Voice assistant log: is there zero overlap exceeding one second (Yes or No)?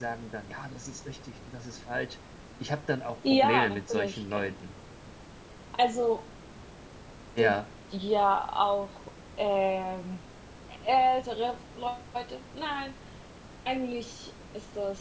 No